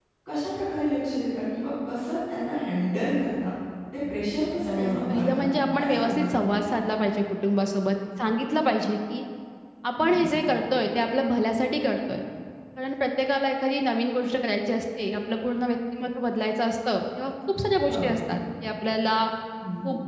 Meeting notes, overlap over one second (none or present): present